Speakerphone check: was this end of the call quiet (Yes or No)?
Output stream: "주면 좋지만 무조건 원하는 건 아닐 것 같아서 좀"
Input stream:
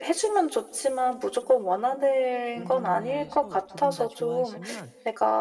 No